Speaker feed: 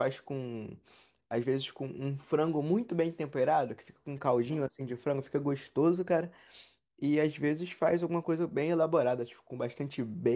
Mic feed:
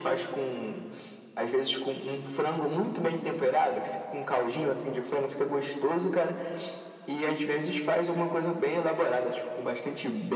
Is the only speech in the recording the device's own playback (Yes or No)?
Yes